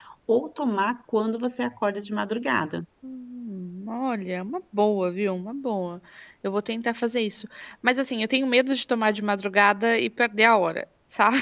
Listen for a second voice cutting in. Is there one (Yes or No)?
No